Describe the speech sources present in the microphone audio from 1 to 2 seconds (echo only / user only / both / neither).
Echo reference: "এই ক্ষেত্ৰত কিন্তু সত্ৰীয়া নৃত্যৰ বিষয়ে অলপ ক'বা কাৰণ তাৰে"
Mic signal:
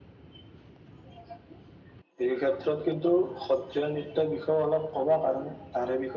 neither